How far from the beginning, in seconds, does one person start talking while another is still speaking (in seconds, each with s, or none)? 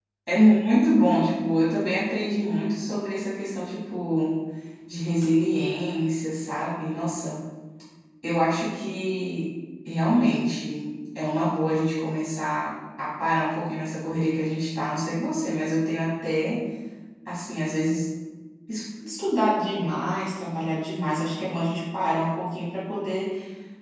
none